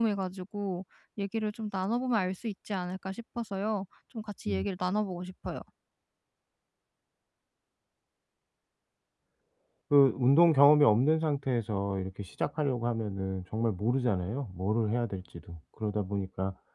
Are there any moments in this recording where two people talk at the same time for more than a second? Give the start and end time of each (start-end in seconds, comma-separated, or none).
none